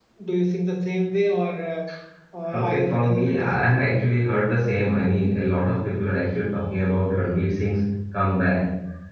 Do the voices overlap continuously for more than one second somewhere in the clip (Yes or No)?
Yes